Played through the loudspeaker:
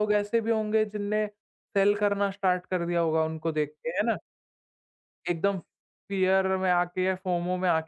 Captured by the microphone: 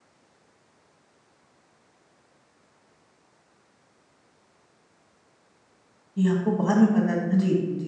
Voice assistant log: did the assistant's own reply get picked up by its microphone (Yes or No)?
No